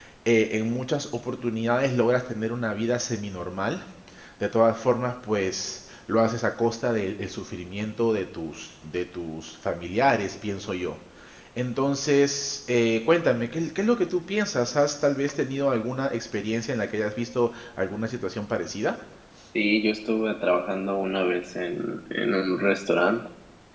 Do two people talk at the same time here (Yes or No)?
No